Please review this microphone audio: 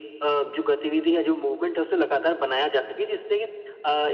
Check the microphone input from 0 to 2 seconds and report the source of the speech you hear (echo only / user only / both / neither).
echo only